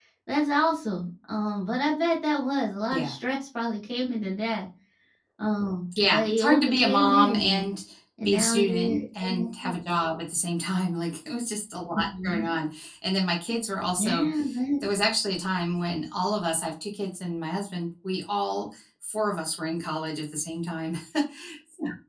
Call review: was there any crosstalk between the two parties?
Yes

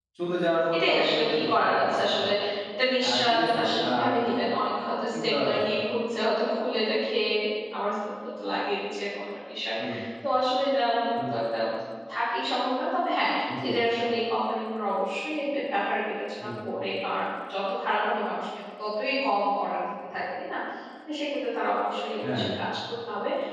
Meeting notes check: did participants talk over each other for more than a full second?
Yes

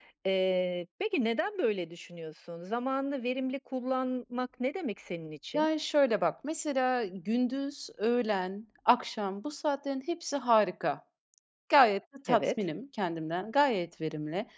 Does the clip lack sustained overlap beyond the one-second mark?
Yes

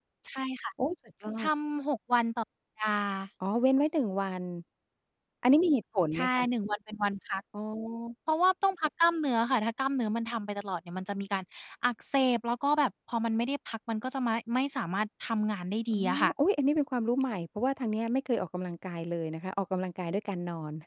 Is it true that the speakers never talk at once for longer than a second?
Yes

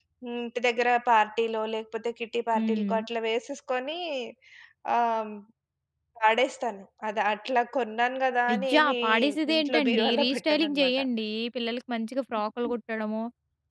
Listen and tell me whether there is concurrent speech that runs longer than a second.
Yes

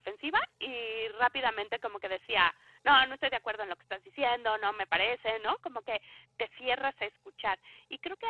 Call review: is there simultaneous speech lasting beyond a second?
No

